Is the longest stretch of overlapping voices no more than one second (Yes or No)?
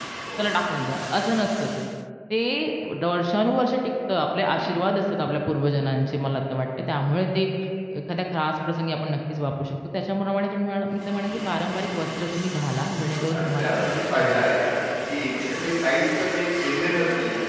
No